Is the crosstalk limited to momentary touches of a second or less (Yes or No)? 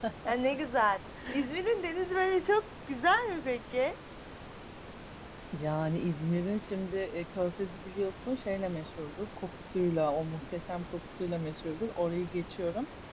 Yes